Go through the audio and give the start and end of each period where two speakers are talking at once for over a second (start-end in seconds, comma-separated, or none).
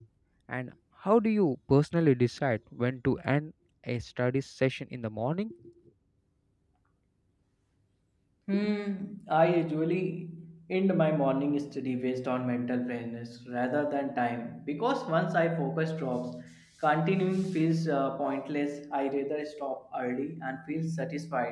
none